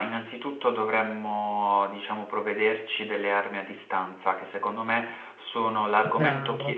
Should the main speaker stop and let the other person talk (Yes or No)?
No